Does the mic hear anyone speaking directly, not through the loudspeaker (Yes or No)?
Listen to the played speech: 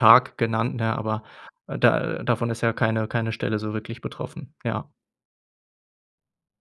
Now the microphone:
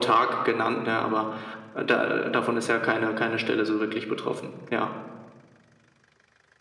No